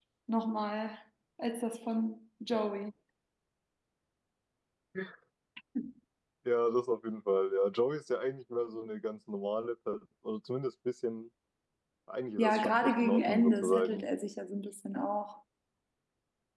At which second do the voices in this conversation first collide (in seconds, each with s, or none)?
12.4 s